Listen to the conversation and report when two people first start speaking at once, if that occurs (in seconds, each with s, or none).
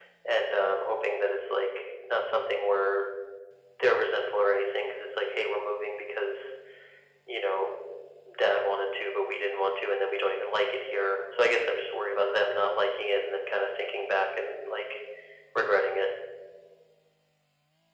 none